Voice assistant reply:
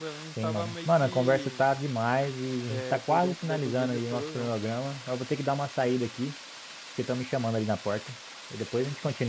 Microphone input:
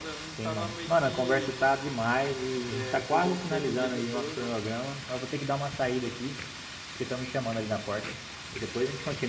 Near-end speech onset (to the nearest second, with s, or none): none